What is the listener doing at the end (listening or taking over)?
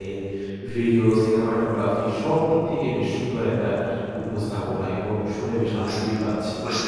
taking over